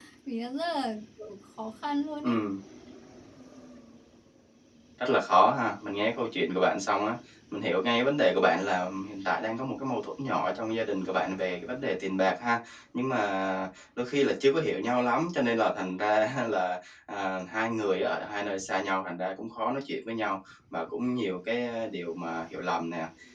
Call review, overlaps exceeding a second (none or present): none